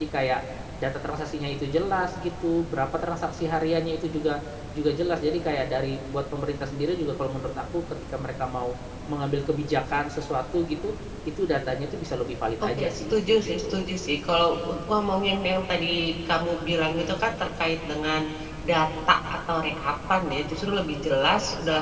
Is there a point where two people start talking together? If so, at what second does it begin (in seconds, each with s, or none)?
12.6 s